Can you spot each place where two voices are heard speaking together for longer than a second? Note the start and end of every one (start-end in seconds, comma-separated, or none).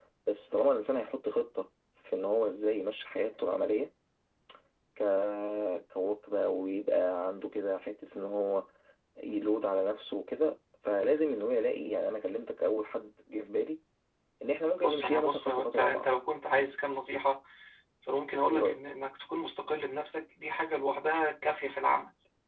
14.8-16.1